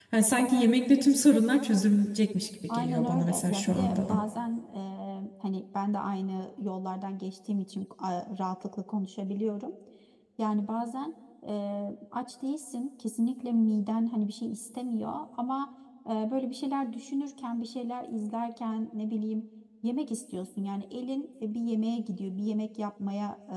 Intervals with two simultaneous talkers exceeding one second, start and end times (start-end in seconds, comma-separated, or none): 2.7-4.2